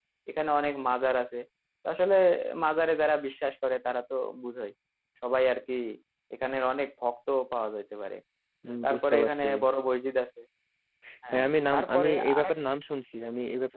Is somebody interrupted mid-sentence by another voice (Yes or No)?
Yes